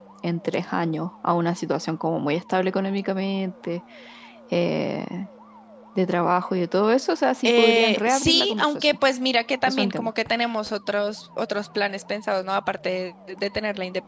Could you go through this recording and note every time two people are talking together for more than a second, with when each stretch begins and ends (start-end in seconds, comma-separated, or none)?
7.5-9.0